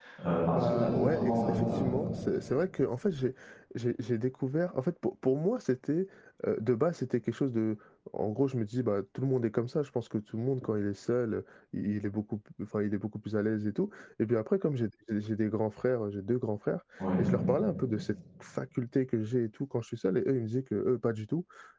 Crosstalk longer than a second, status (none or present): present